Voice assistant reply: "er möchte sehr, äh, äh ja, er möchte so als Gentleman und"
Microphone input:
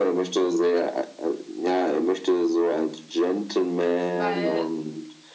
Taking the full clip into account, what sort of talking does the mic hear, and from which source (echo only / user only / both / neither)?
both